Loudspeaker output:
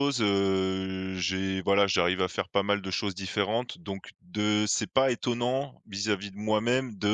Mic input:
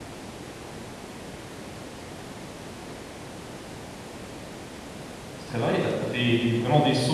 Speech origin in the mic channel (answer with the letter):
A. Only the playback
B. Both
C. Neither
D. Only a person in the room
D